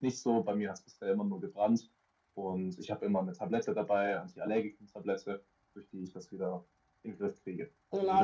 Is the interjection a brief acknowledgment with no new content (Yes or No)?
No